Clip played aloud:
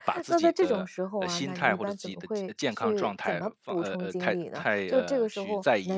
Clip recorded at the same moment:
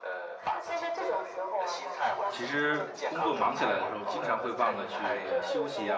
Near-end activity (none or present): present